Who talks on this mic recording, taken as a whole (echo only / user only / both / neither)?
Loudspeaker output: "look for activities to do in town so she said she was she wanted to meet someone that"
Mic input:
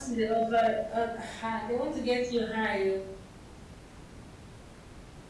user only